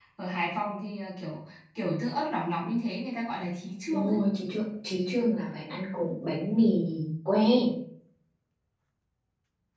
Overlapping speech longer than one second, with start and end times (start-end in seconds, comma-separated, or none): none